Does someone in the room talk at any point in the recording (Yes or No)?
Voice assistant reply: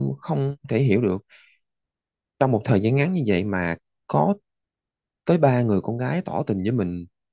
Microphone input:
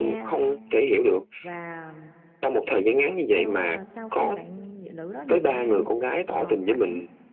Yes